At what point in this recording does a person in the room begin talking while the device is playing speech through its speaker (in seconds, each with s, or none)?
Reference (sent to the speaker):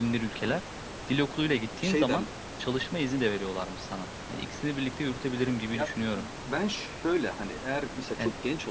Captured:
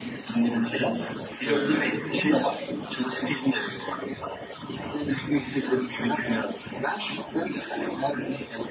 1.4 s